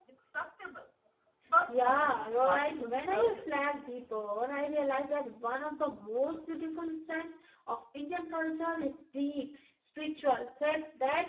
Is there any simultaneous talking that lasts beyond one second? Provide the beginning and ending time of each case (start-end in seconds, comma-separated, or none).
1.7-3.5